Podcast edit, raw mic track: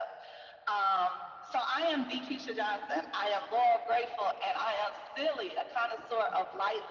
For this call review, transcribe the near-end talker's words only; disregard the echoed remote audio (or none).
none